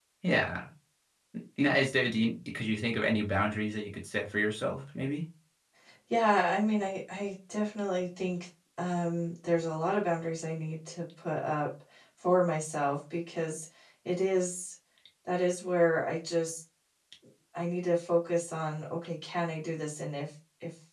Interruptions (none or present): none